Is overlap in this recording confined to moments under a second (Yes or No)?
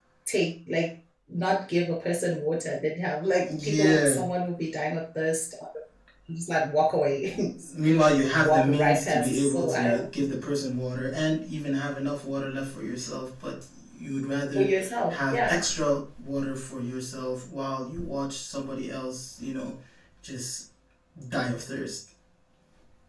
No